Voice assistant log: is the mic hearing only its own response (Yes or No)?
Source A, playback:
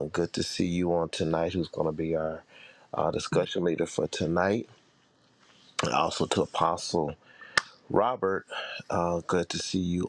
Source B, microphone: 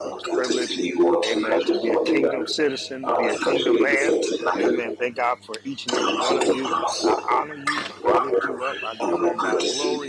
No